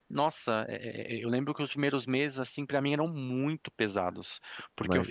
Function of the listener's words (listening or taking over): listening